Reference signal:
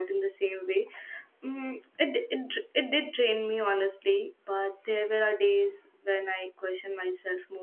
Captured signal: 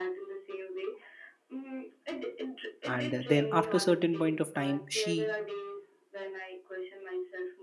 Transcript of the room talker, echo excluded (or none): and uh, then after certain point of time she